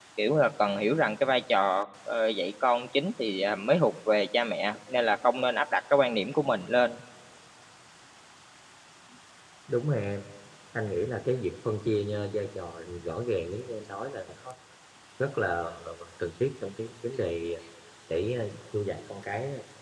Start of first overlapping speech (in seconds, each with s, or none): none